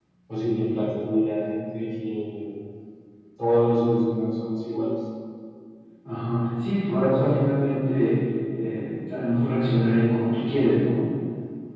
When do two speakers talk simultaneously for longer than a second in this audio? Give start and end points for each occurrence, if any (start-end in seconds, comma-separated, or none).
none